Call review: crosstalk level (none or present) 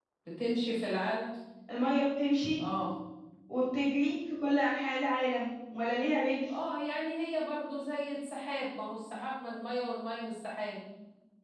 none